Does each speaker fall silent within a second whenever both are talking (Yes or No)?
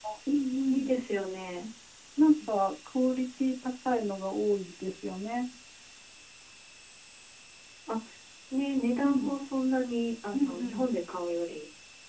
Yes